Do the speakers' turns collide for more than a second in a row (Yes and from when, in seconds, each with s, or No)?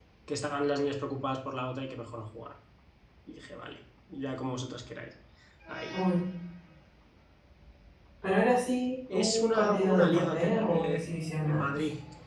Yes, from 9.1 s